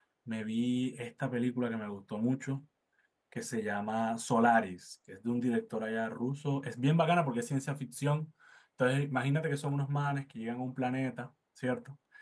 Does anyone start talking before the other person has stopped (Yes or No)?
No